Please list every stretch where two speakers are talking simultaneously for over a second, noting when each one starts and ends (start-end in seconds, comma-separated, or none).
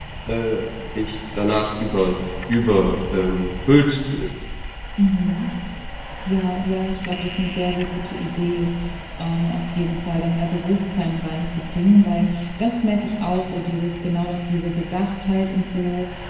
none